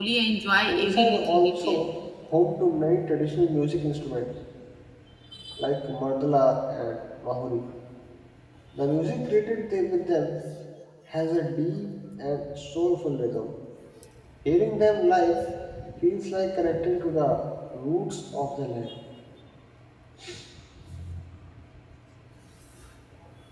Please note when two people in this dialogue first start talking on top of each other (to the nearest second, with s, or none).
1 s